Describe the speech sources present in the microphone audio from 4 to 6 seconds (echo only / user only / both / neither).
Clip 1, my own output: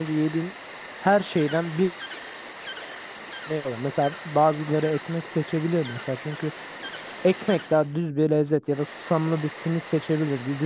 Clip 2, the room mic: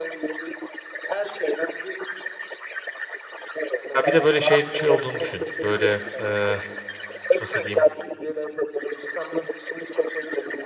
both